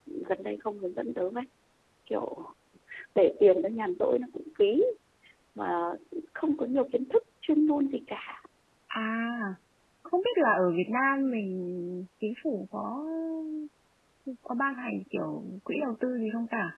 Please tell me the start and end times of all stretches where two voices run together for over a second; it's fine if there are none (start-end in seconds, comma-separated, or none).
none